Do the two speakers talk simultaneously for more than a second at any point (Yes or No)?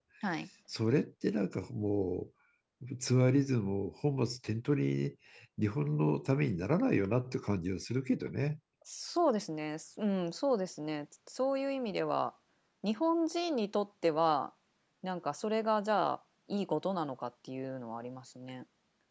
No